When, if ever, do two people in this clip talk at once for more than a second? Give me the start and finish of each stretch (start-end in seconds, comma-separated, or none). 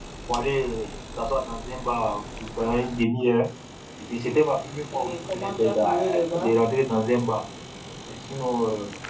4.9-6.5